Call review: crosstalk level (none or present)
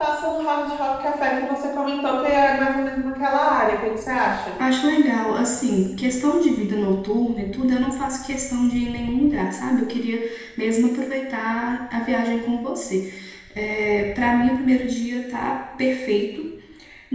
none